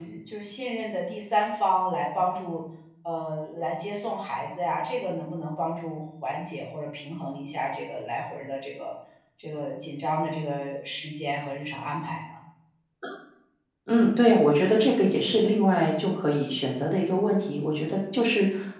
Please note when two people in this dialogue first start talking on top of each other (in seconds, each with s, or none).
none